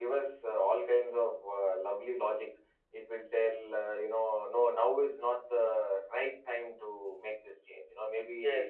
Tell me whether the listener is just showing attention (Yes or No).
Yes